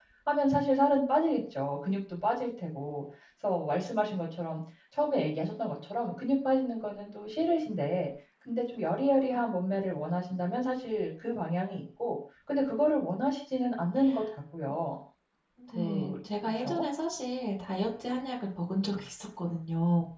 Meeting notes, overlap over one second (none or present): none